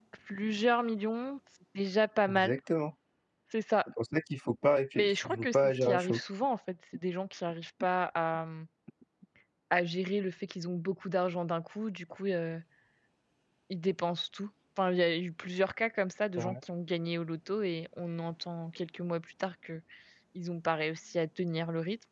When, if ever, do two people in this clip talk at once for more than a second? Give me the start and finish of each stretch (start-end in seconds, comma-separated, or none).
5.0-6.2